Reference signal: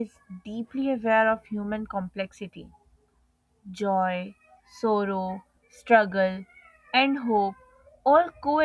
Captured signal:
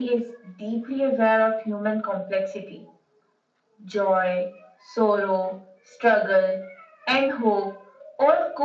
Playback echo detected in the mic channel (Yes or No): Yes